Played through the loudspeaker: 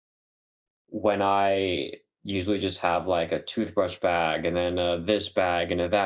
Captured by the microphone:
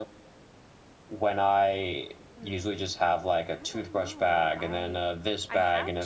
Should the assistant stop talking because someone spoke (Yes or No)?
Yes